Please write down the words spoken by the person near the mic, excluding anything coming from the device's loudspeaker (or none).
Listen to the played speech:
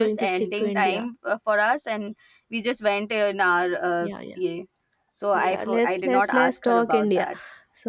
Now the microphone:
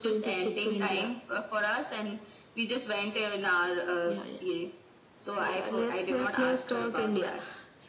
none